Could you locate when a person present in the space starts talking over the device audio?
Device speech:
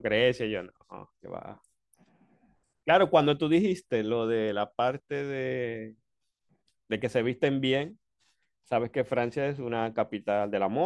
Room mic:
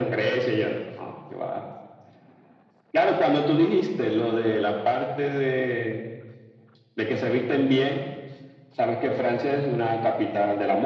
none

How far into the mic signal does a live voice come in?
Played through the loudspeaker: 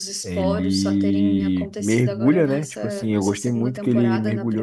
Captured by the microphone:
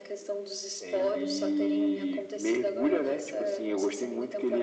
none

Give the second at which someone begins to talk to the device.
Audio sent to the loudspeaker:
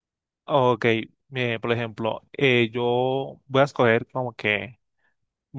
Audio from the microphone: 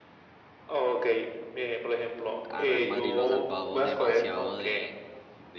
2.5 s

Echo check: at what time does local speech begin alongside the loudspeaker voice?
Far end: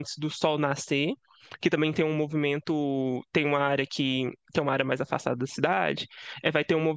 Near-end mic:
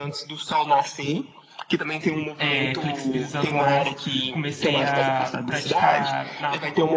2.4 s

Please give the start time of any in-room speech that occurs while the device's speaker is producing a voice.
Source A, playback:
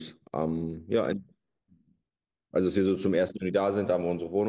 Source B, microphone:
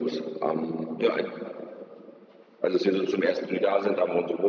none

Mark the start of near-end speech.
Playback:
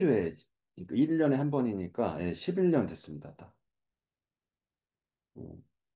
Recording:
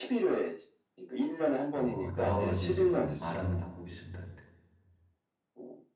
1.7 s

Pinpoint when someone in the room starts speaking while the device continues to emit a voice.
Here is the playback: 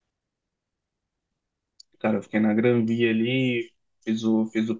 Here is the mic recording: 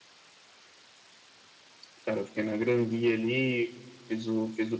none

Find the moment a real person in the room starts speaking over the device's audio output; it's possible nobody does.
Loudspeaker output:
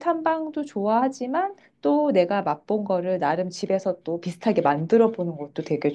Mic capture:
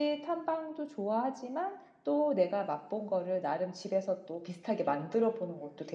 none

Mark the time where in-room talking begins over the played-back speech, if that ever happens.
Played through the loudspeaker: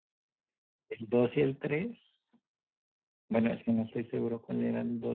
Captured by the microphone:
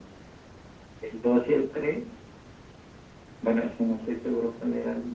none

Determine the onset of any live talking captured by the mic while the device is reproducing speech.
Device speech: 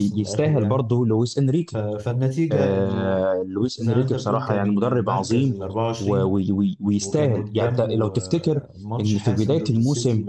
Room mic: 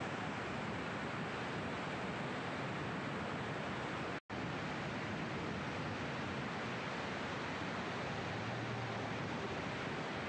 none

